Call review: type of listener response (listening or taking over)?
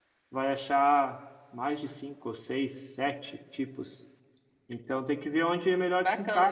taking over